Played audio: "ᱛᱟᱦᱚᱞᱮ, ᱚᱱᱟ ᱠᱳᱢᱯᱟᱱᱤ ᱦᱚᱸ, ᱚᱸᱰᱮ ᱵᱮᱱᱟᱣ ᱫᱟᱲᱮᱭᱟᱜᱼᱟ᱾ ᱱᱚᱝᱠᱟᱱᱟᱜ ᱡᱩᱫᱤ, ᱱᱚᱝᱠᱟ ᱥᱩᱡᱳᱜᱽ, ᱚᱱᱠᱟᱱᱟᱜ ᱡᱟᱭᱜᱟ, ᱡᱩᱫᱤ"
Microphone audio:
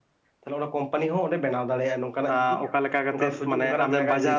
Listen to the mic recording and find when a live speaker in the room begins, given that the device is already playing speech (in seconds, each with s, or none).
2.2 s